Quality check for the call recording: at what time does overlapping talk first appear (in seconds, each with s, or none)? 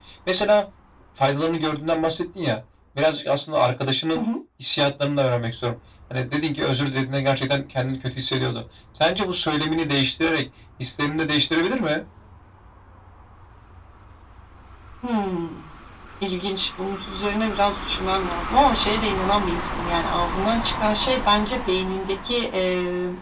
none